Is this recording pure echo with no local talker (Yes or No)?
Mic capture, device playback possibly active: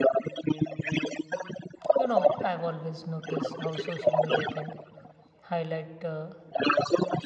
No